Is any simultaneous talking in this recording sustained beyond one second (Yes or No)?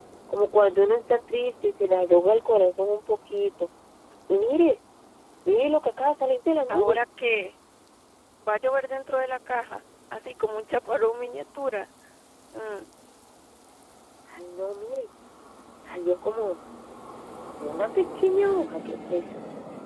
No